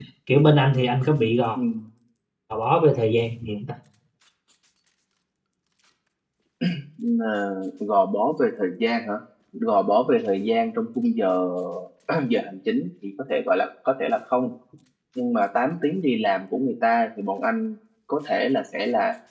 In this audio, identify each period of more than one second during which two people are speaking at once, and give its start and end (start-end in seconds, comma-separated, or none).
none